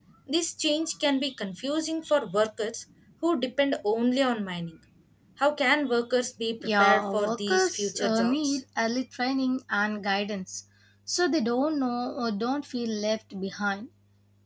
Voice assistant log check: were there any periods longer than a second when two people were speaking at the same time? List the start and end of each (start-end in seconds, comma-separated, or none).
6.6-8.6